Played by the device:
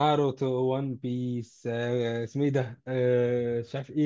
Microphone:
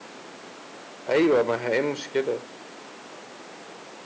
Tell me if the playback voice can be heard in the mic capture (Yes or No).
No